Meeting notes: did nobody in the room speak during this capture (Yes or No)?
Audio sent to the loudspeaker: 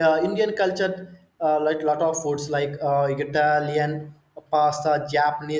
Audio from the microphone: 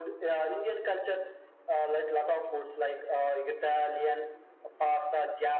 Yes